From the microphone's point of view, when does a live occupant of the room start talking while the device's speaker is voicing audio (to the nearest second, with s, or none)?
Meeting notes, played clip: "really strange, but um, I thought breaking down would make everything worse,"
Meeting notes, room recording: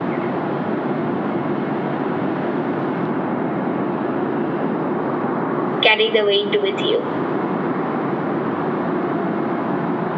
6 s